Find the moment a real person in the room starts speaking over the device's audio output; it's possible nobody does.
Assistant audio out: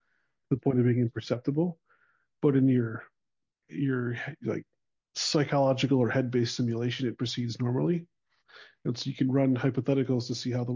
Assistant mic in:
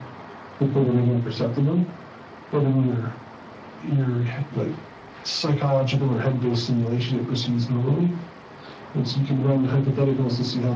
none

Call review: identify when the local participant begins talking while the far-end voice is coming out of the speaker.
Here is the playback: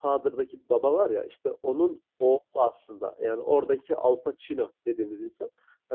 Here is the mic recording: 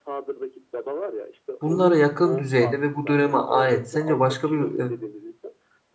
1.6 s

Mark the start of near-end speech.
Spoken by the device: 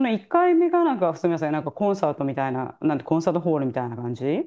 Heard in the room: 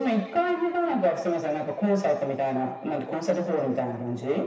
none

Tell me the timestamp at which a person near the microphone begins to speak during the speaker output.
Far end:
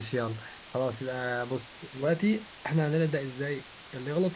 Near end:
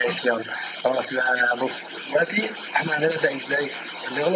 none

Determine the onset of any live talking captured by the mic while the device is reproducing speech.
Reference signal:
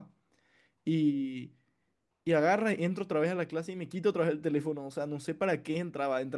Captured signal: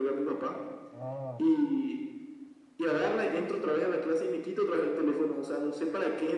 0.9 s

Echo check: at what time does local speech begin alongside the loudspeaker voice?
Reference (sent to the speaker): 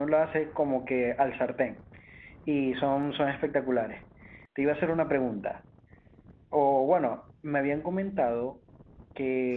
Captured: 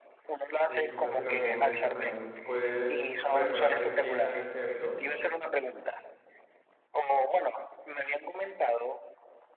0.7 s

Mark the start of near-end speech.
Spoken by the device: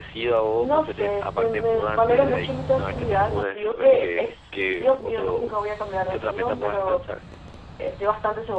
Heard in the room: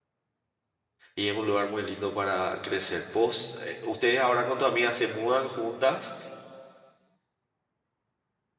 1.1 s

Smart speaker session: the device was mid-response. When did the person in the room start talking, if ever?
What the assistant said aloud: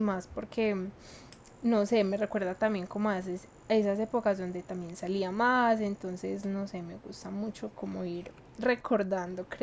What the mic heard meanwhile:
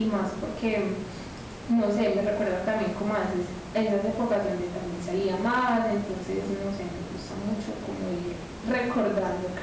none

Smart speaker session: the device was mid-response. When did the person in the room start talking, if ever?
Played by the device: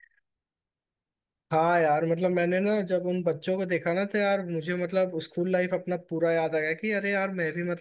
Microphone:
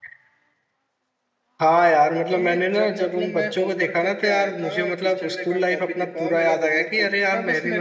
2.3 s

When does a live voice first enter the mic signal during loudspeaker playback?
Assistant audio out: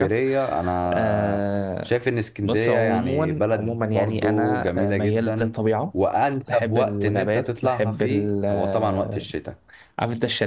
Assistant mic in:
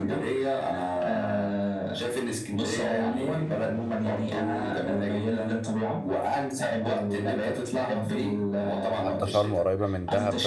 9.0 s

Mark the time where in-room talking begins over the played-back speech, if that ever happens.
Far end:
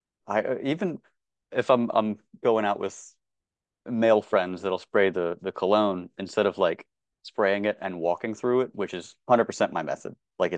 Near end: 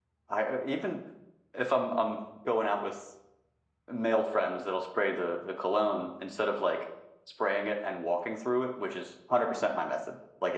none

